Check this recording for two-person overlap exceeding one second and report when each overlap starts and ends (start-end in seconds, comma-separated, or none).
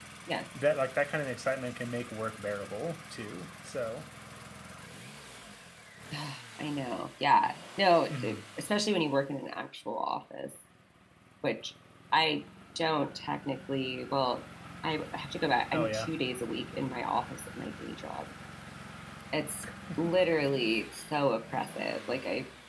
none